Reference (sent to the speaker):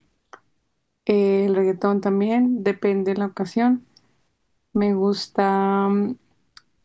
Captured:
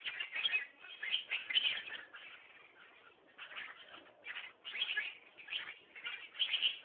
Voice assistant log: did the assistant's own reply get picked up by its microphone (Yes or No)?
No